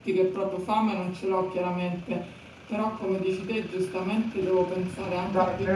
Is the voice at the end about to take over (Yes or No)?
Yes